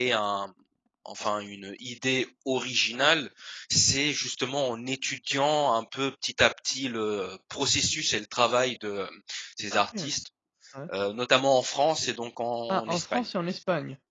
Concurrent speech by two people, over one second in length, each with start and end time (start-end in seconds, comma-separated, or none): none